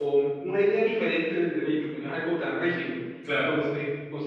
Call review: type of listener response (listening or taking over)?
listening